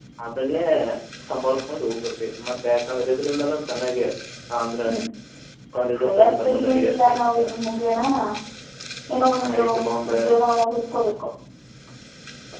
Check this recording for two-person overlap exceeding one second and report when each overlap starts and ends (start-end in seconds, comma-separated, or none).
6.0-7.4